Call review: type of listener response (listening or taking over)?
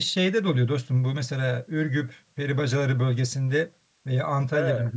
listening